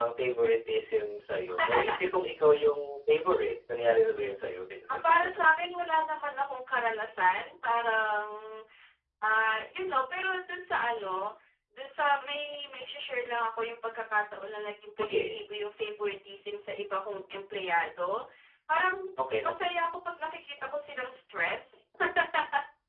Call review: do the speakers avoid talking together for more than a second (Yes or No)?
Yes